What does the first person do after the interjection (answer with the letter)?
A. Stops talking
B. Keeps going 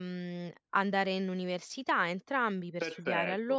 A